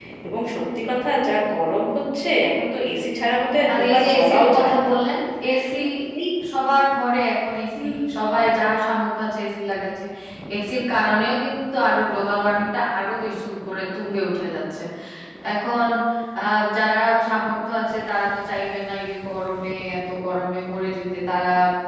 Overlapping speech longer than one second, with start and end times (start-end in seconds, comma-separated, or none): 3.7-4.9